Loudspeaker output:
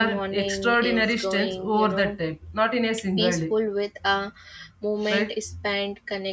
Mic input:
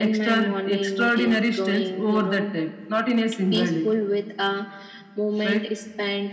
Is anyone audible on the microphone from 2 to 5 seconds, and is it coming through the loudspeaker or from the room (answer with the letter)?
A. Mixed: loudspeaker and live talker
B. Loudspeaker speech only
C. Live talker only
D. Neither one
B